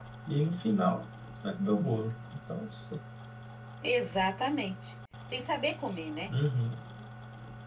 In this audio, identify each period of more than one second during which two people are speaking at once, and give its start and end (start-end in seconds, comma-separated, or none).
none